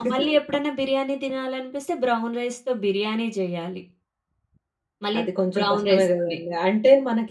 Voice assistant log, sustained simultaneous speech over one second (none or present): present